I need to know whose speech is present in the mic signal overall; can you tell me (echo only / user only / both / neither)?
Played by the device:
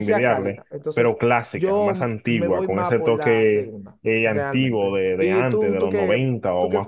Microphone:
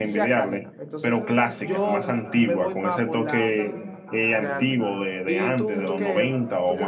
both